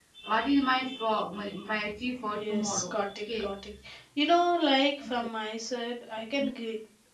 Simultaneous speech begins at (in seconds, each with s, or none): 2.2 s